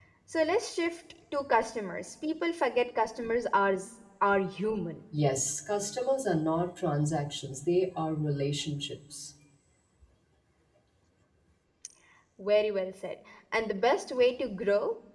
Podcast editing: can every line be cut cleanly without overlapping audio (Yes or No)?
Yes